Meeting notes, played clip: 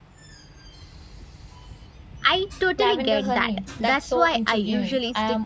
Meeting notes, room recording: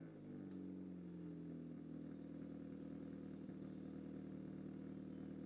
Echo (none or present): none